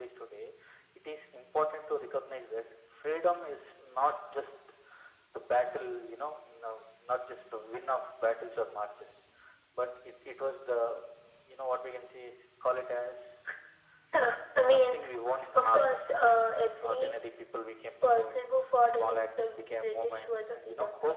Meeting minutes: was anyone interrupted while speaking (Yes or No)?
Yes